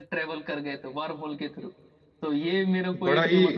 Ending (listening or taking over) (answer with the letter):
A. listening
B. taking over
A